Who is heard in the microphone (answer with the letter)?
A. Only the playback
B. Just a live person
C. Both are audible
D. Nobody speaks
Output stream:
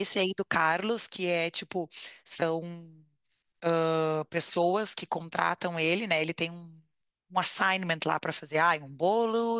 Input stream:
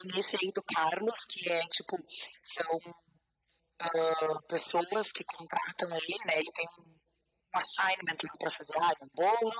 A